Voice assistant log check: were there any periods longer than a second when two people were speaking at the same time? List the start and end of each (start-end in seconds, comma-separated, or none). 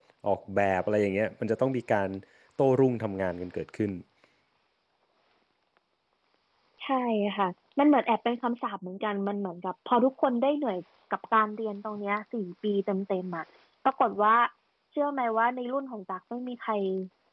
none